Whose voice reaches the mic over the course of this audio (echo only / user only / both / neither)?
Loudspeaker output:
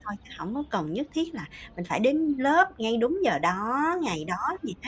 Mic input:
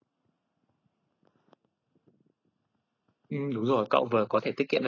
user only